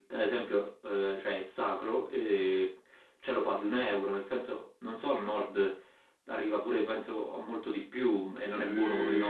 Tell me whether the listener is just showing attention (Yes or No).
No